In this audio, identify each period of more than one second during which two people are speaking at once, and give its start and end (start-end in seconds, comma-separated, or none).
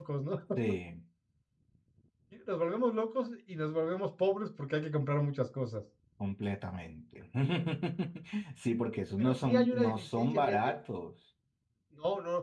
9.2-10.6